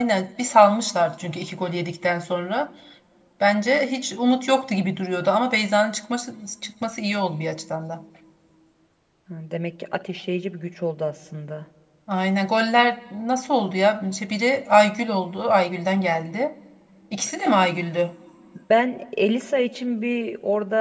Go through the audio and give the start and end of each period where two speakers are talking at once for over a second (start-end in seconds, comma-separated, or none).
none